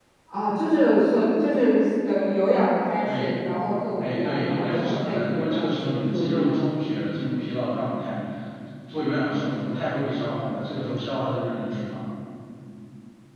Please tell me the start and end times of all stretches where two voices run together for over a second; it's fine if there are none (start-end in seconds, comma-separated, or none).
4.0-6.7